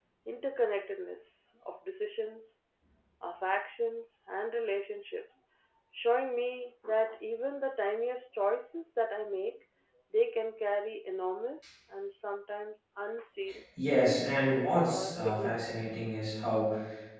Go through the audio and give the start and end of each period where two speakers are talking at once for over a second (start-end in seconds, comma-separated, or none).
14.5-16.0